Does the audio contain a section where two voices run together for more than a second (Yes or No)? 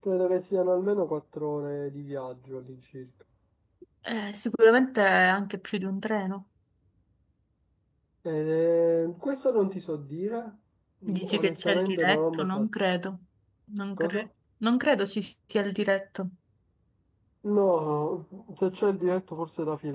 Yes